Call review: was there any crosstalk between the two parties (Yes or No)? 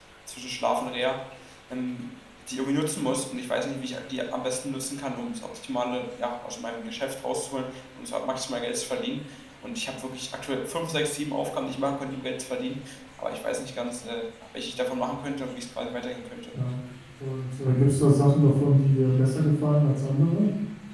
No